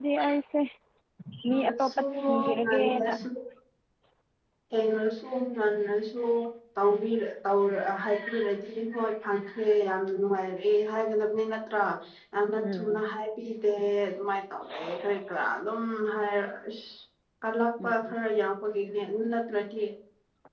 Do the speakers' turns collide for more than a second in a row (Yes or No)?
Yes